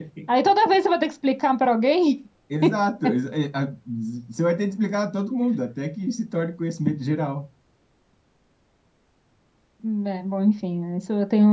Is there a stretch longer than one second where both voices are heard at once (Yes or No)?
No